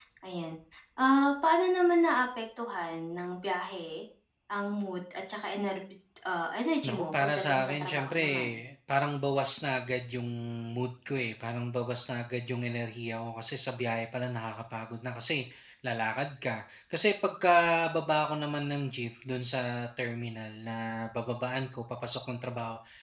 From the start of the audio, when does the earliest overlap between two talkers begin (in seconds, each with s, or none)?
6.8 s